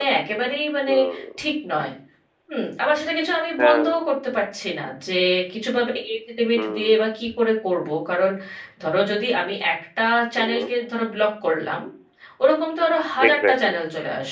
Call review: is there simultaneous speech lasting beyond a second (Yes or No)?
No